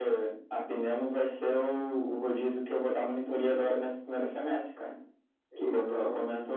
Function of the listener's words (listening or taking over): listening